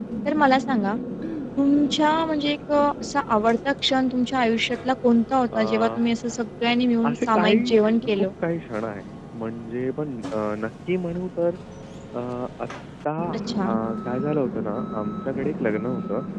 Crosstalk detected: Yes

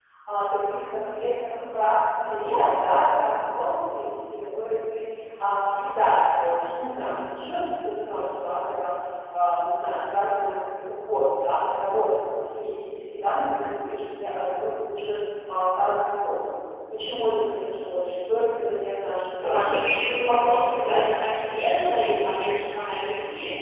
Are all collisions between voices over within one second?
No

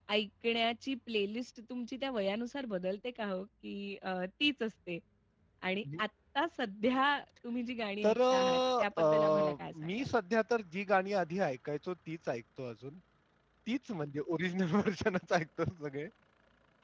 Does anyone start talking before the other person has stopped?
Yes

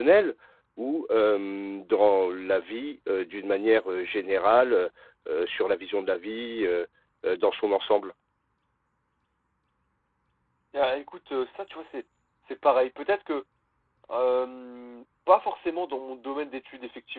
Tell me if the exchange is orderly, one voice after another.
Yes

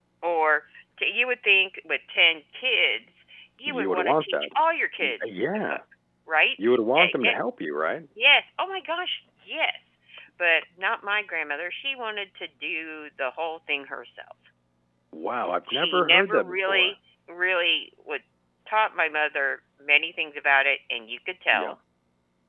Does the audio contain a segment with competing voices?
Yes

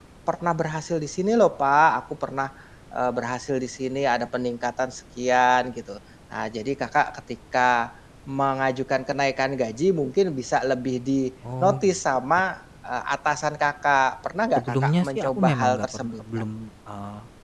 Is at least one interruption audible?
Yes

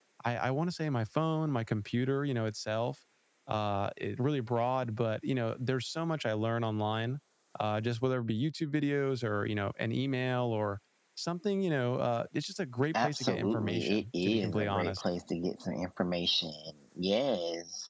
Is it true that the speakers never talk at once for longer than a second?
No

